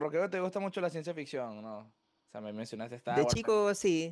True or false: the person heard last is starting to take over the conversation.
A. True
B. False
A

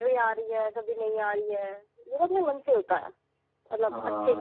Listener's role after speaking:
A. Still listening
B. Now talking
B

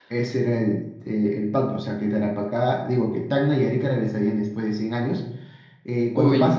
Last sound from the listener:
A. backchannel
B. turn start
A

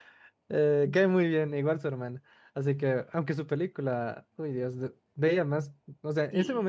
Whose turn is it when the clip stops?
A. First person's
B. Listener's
A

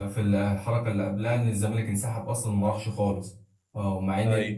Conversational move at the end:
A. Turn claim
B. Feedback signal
B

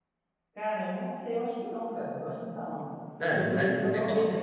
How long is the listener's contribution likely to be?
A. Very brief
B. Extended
B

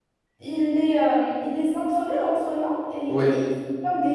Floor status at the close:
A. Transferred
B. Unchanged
B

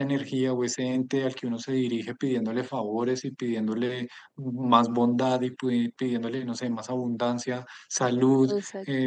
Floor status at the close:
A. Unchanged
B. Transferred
A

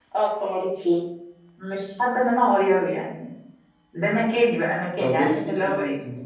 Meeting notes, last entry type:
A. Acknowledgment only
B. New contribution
B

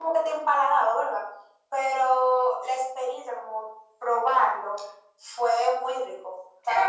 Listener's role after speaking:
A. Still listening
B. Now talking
B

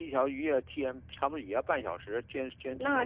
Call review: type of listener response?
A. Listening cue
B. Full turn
A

